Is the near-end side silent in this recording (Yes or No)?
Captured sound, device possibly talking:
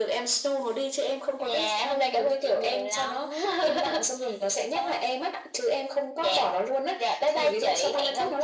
Yes